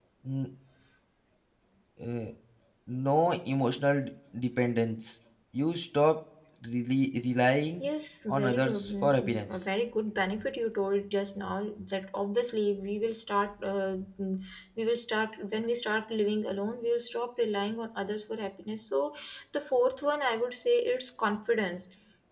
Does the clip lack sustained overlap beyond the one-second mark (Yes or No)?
No